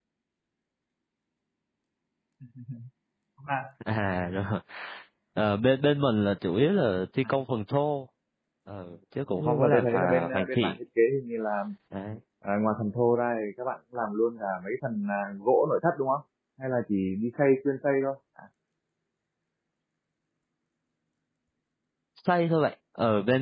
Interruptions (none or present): present